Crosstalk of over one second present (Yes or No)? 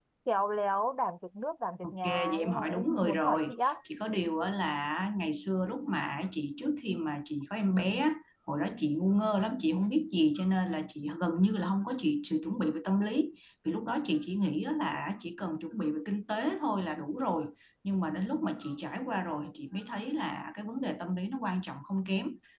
Yes